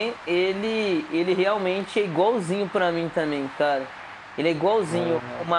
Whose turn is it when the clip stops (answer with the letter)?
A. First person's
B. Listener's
A